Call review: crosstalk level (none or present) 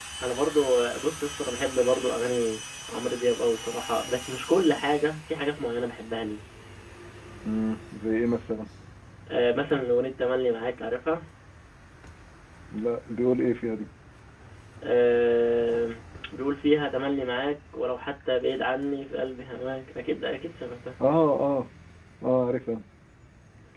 none